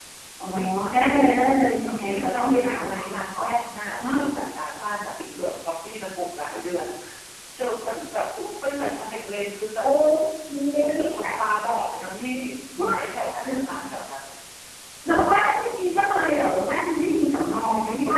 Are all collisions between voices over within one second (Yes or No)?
No